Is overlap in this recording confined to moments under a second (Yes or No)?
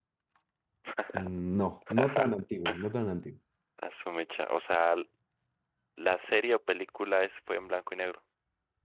Yes